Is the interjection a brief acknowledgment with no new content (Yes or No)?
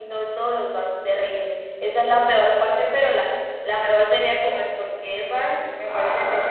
No